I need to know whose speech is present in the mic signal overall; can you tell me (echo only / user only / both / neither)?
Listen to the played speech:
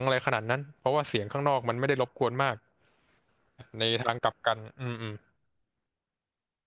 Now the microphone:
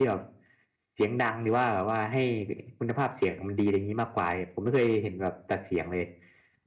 user only